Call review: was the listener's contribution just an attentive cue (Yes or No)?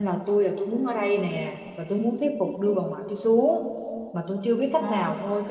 Yes